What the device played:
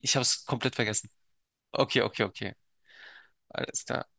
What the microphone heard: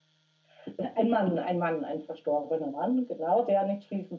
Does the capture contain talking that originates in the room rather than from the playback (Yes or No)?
Yes